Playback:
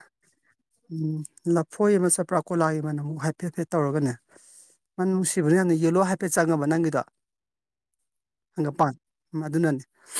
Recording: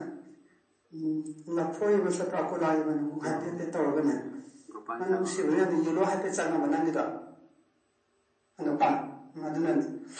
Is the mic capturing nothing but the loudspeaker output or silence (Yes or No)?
No